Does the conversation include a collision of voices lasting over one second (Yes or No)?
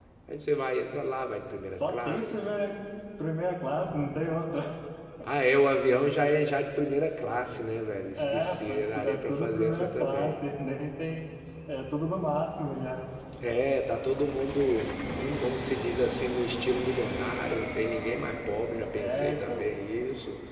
Yes